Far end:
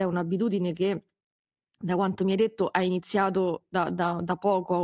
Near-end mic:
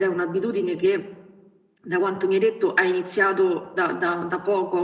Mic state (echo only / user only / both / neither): echo only